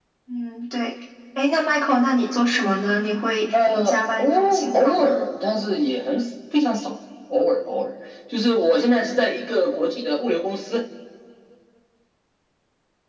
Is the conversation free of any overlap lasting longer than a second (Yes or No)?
No